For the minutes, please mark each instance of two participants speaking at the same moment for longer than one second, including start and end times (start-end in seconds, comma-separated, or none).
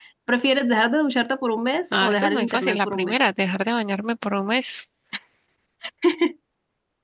1.9-3.1